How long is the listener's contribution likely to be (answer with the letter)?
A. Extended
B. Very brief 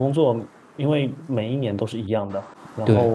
B